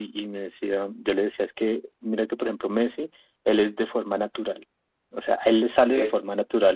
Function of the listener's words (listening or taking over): listening